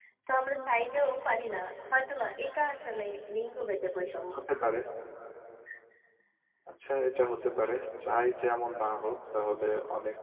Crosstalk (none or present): none